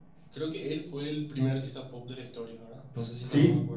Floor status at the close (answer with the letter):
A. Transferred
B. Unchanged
A